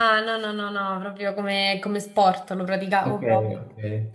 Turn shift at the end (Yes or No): Yes